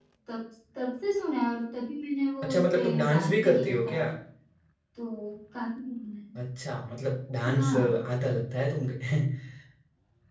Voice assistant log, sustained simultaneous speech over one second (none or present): present